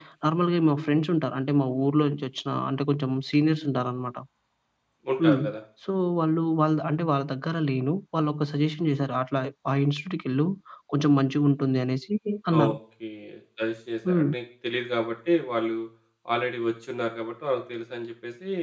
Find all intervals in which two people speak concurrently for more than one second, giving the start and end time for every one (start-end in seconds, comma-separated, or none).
none